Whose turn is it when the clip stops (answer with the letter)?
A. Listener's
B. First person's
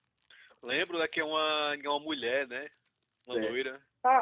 A